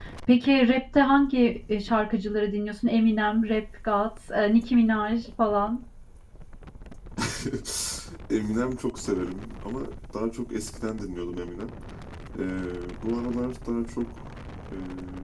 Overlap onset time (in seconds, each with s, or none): none